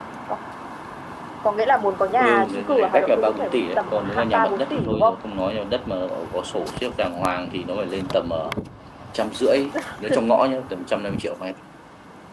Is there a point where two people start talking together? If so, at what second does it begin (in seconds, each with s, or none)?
2.2 s